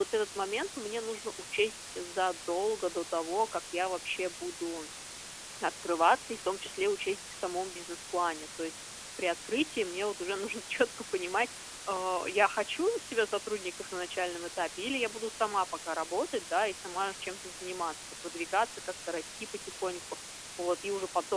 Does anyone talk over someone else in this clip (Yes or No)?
No